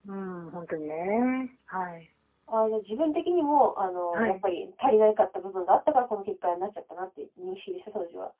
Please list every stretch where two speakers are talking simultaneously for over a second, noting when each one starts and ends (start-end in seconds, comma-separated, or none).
none